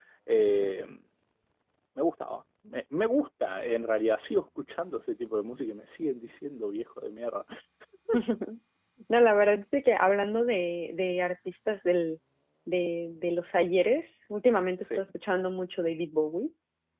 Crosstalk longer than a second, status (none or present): none